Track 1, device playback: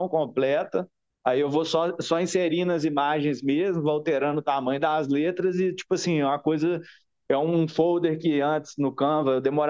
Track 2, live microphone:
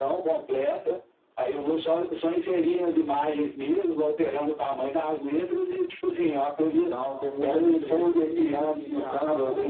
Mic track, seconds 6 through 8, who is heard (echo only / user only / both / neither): both